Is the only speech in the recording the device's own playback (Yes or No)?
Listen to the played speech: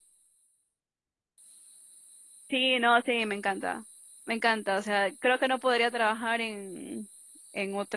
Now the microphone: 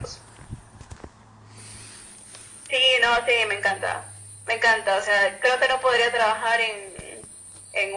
Yes